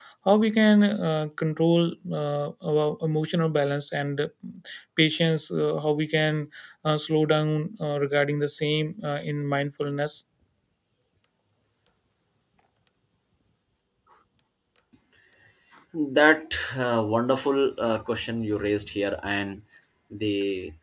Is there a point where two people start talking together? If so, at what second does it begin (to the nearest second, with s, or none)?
none